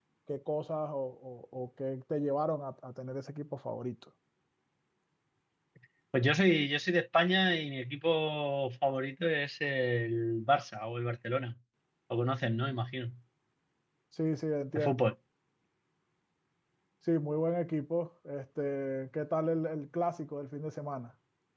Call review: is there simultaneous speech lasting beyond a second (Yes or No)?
No